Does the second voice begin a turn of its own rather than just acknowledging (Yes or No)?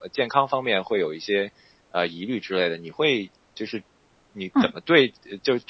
No